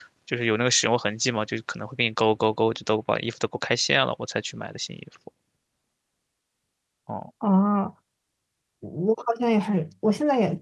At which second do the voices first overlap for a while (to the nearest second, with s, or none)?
none